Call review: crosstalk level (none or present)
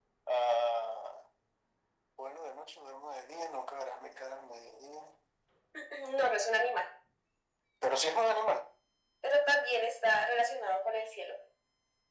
none